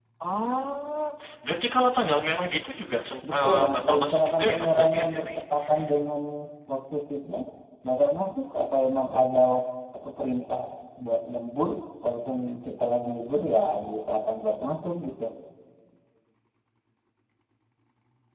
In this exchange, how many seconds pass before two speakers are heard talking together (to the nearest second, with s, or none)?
3 s